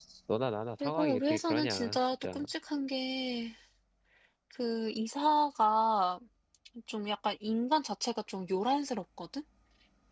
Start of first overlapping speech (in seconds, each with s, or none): 0.8 s